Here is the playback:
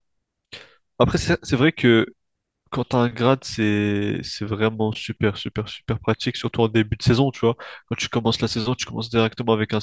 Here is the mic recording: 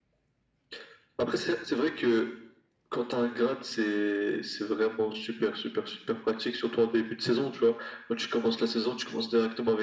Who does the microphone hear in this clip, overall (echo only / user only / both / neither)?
echo only